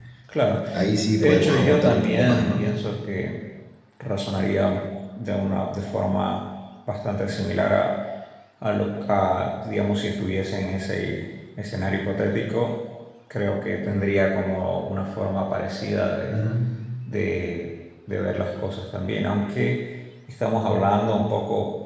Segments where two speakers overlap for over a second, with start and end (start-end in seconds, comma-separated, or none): 1.2-2.7